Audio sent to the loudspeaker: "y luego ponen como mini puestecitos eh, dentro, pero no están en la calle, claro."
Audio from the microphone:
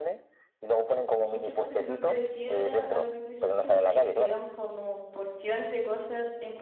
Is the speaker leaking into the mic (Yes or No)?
Yes